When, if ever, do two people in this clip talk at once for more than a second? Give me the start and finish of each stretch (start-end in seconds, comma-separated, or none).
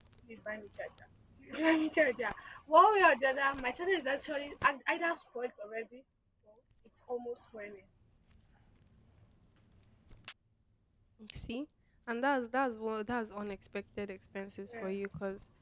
none